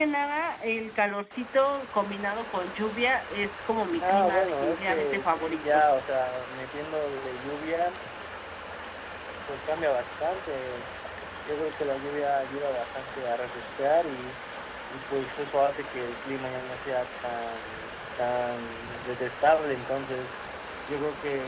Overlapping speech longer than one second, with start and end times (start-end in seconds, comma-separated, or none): 4.0-5.8